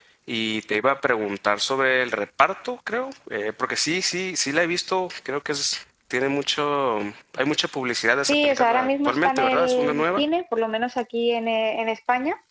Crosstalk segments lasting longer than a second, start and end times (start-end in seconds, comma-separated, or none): 8.3-10.2